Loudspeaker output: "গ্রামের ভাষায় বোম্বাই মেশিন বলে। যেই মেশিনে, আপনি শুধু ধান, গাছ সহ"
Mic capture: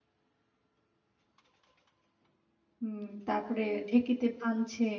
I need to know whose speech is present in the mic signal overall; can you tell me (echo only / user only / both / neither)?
user only